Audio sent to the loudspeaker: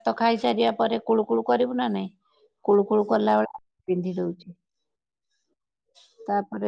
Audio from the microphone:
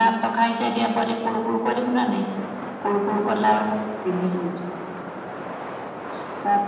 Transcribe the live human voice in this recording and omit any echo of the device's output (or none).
none